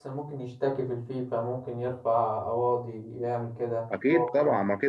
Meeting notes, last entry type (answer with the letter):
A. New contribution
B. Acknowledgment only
A